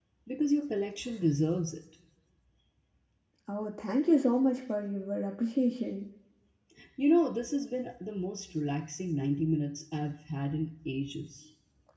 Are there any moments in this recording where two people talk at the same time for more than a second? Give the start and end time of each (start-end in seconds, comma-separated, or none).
none